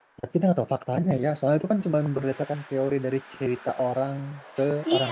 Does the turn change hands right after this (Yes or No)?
Yes